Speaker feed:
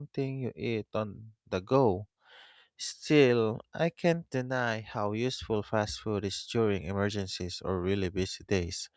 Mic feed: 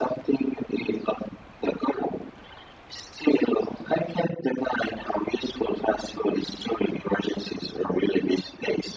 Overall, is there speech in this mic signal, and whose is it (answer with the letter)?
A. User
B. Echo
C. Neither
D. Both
B